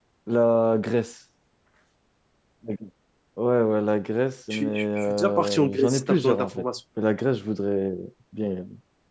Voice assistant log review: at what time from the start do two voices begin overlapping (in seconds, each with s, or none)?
4.5 s